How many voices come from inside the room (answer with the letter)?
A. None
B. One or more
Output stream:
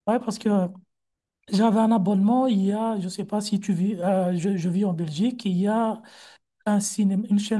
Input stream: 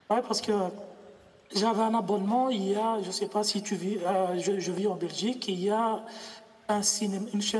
A